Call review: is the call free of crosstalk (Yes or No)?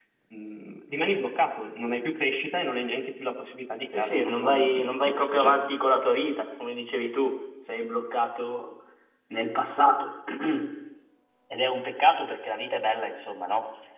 No